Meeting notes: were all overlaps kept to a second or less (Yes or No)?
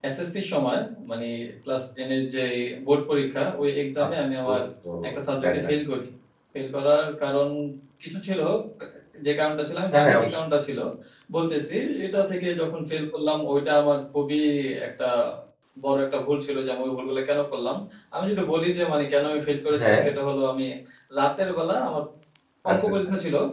Yes